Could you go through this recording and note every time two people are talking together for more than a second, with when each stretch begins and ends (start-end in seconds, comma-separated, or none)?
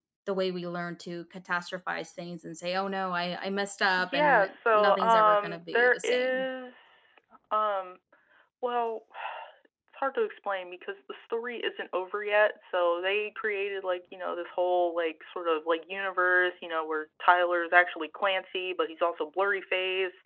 4.1-6.5